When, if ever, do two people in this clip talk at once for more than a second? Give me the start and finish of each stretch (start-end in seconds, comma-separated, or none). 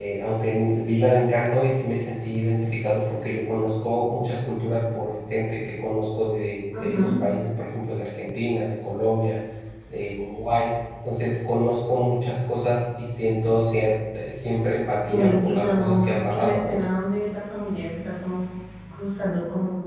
15.1-16.8